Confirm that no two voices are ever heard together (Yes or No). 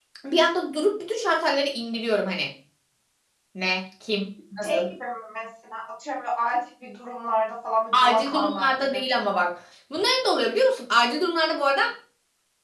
No